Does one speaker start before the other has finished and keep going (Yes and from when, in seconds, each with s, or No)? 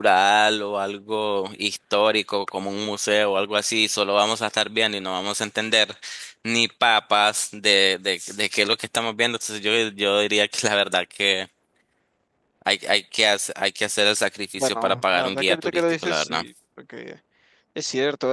Yes, from 14.6 s